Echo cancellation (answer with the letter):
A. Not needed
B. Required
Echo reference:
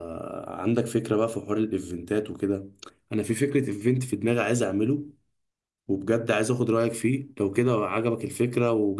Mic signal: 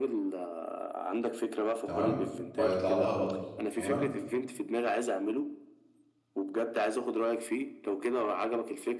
B